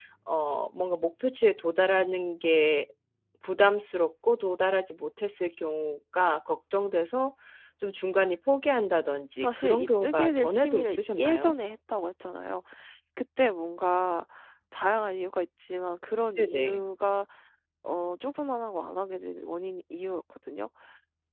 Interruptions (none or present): present